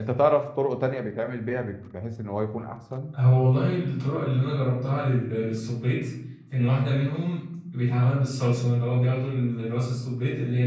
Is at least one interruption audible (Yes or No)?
No